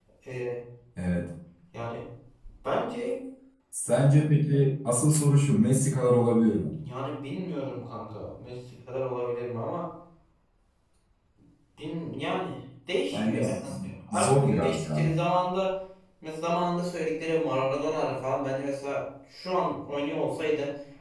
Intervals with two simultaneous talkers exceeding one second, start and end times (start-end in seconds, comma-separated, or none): 13.1-15.2